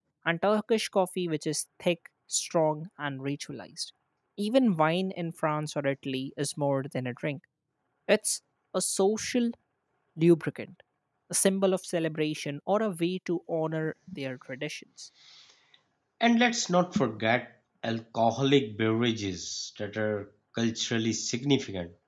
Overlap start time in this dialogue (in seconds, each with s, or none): none